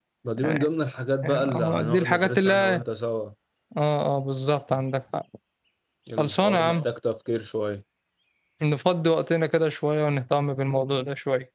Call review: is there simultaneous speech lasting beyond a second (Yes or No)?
Yes